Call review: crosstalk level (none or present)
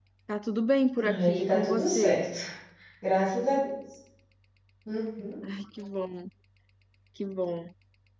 present